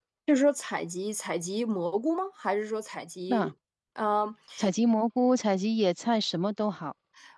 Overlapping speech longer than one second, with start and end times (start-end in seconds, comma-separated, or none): none